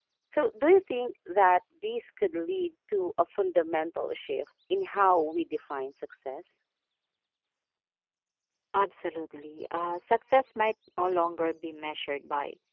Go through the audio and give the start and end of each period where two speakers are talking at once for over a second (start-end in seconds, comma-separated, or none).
none